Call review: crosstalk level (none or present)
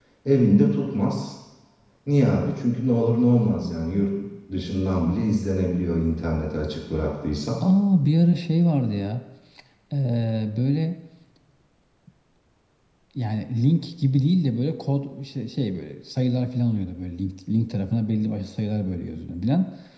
none